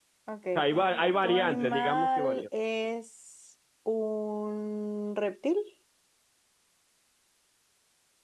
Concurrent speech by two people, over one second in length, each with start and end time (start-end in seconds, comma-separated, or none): 1.2-2.4